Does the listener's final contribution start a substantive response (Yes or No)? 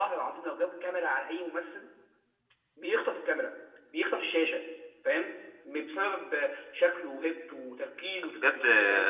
Yes